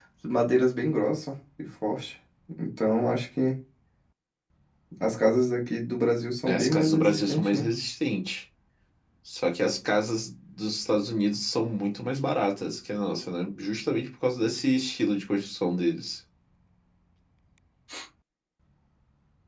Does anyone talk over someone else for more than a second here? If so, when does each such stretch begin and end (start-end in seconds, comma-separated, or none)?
6.5-7.7